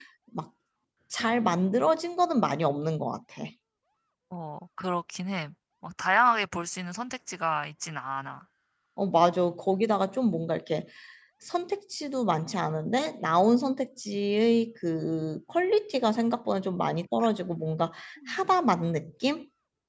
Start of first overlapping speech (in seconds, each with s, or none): none